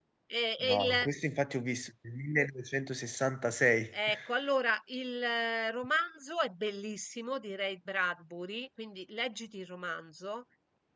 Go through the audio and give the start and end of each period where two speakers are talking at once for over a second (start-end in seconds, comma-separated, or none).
none